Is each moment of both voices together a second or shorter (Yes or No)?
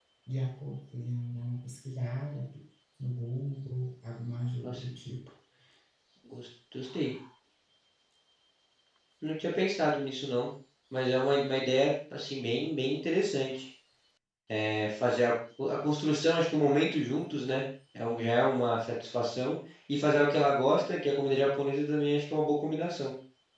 Yes